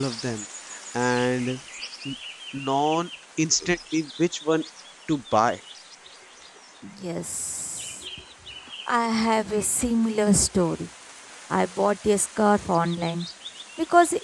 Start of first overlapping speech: none

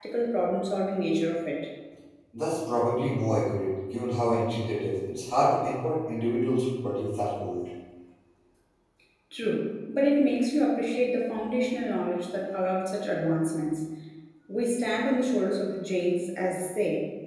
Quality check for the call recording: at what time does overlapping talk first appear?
none

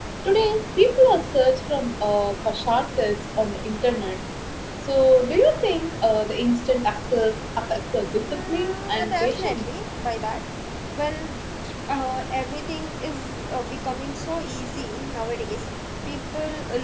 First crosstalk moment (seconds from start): 8 s

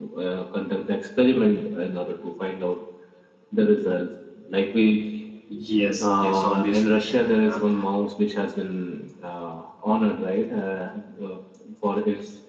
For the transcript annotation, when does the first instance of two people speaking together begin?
6 s

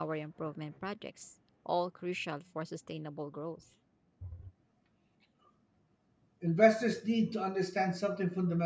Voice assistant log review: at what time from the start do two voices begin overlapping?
none

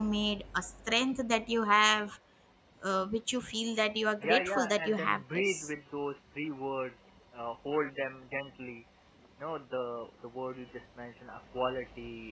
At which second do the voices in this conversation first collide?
4 s

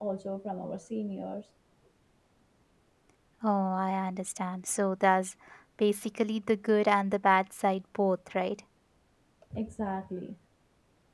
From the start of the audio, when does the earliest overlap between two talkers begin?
none

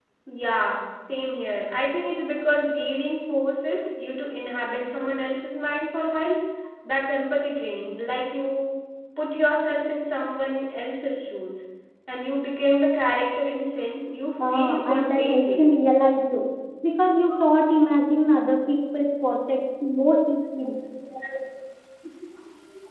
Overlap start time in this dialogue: 14 s

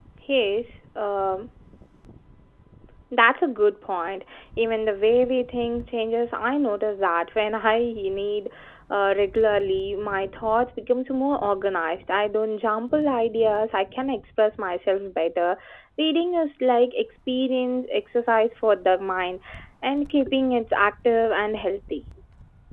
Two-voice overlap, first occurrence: none

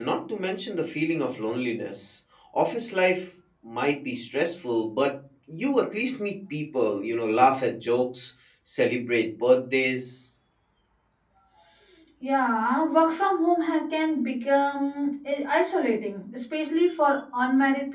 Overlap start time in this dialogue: none

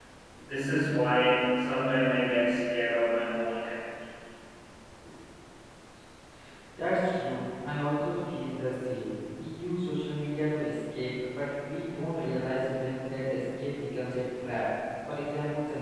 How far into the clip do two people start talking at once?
none

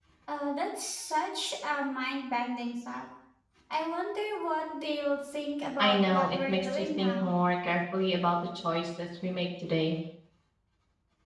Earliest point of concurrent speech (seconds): 6 s

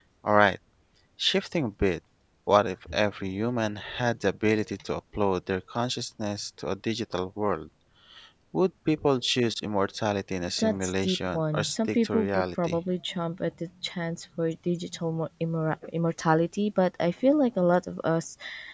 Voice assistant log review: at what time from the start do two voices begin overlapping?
11 s

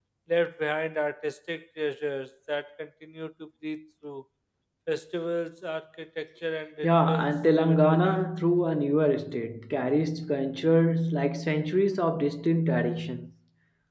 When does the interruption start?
7 s

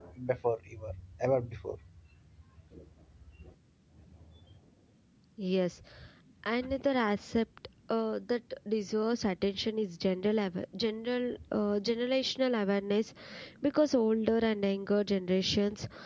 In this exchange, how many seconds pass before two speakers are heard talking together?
none

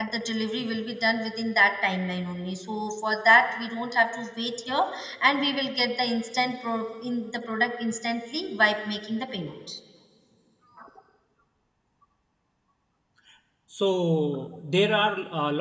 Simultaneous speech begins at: none

